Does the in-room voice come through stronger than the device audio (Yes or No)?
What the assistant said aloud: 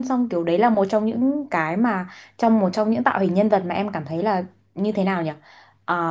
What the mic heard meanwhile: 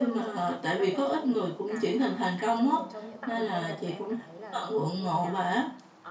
Yes